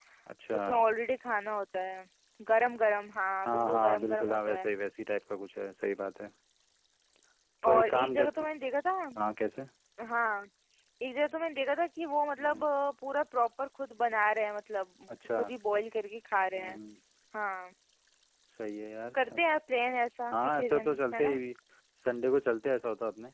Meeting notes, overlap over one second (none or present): present